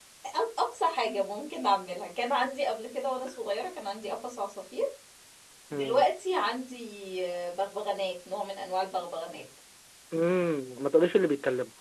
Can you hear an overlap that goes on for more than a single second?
No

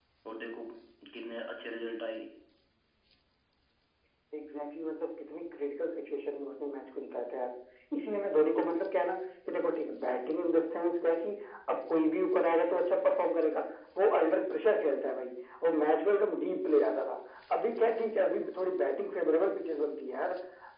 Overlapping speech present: No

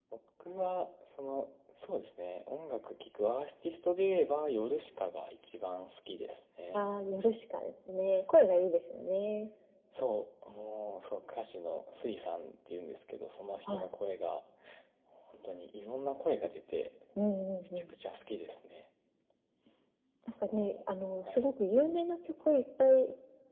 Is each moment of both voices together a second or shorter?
Yes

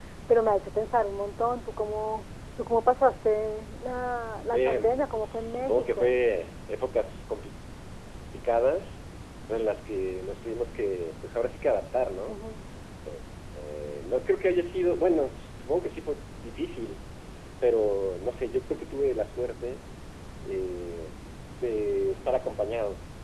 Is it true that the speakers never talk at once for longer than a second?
No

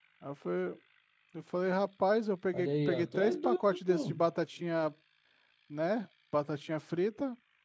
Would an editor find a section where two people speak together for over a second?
Yes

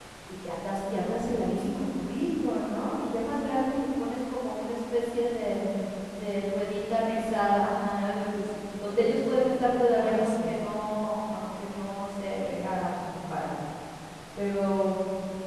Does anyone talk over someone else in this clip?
Yes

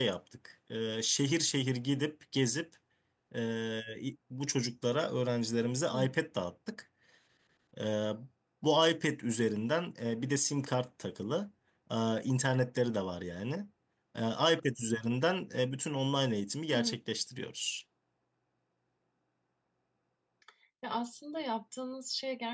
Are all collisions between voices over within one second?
Yes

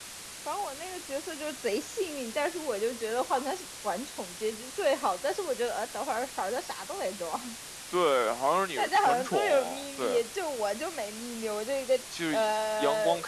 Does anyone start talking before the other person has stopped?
Yes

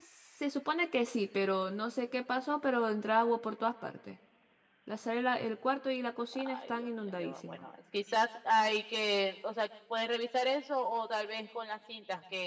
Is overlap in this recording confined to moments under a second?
No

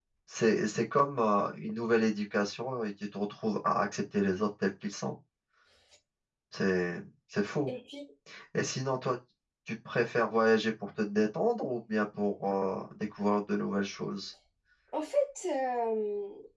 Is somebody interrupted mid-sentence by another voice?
No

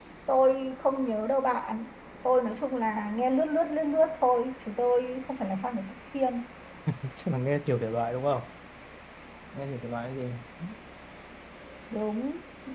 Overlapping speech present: No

